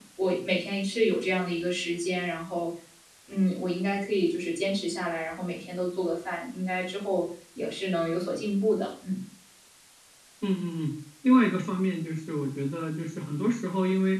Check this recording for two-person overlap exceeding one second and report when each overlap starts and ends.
none

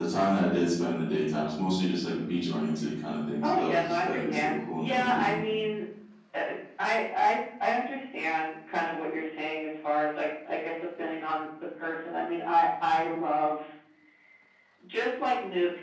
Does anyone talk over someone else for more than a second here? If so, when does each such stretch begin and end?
3.4-5.3

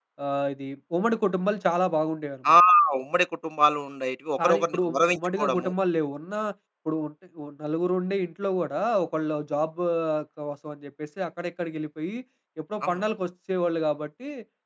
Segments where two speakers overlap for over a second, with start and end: 4.4-5.7

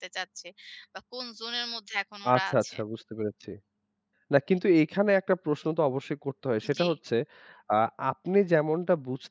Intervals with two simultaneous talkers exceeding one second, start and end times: none

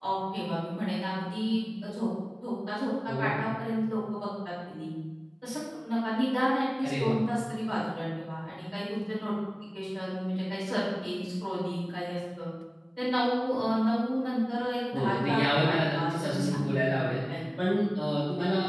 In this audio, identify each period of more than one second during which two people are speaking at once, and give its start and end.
14.9-17.0

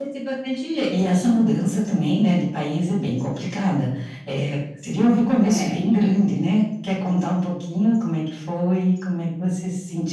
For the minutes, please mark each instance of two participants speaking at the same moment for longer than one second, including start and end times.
none

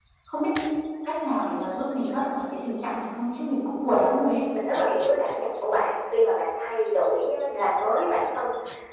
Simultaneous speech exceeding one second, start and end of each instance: none

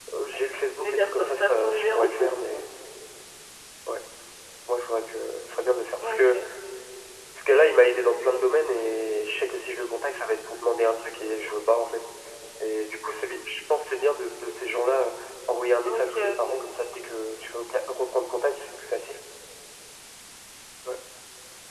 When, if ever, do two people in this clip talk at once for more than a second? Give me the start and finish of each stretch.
0.8-2.6

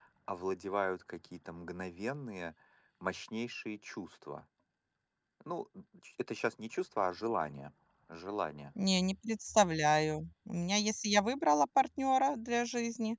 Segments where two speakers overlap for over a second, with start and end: none

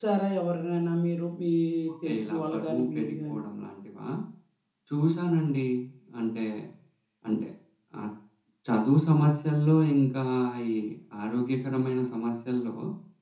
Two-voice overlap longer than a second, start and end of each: 2.0-3.4

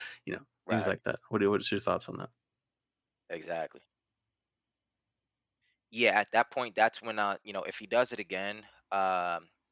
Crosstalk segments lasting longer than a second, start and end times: none

